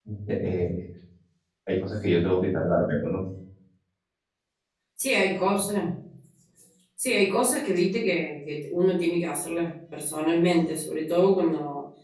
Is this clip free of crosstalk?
Yes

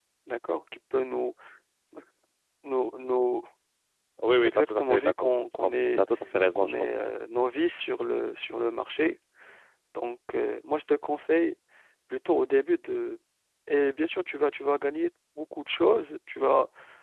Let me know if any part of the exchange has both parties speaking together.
Yes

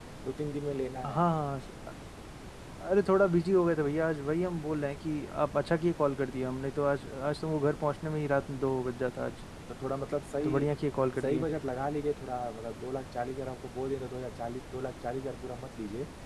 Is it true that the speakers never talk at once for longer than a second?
Yes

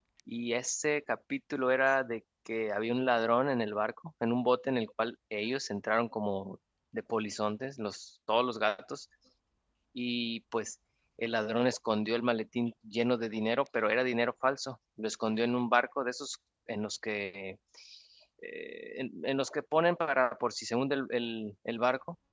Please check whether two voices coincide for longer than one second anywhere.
No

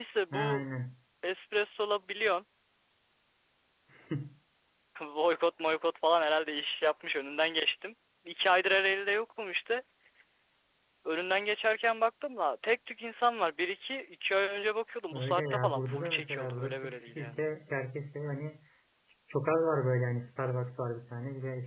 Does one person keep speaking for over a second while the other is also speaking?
Yes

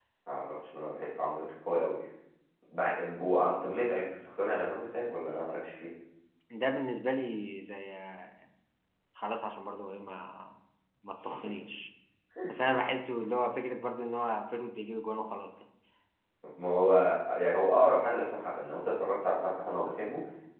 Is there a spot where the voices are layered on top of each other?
No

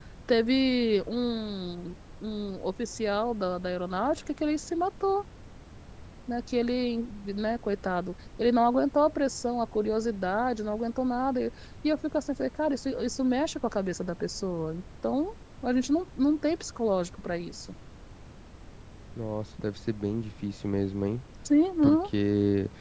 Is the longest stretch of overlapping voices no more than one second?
Yes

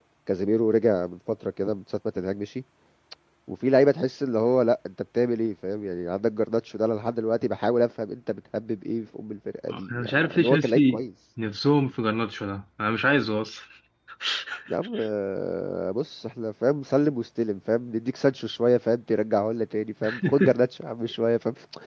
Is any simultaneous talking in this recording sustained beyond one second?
Yes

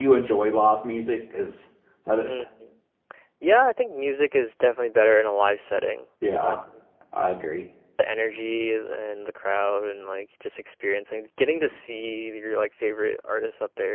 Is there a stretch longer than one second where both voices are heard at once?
No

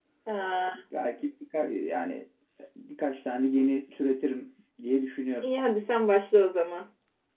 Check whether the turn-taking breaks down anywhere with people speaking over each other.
No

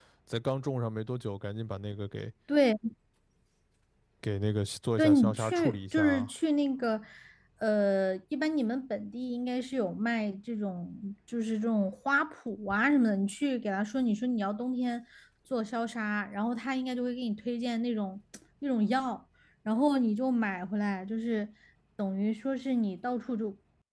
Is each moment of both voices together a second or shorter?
No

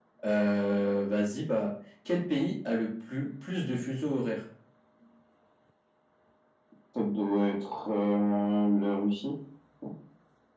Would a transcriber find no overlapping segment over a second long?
Yes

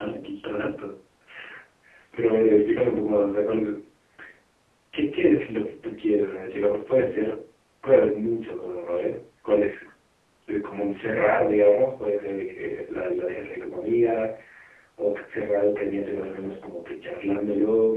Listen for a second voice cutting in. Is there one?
No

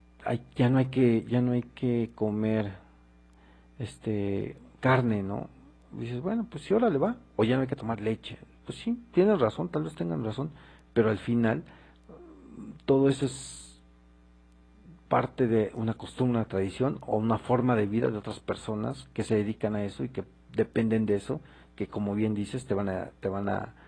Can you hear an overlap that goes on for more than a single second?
No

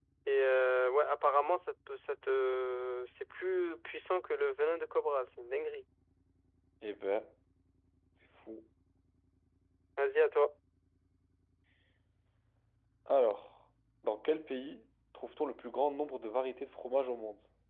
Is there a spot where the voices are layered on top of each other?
No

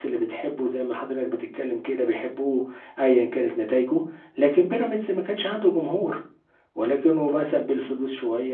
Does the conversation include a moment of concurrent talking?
No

